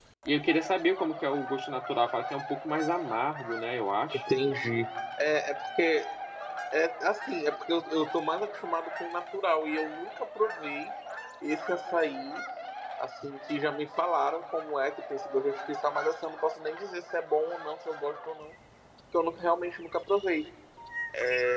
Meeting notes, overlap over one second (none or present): none